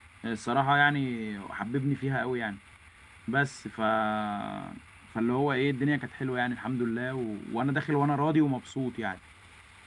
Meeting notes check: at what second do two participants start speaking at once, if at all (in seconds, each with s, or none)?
none